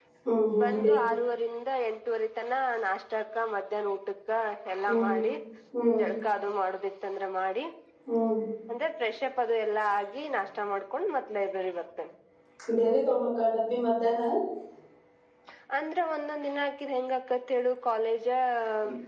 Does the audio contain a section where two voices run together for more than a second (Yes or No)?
No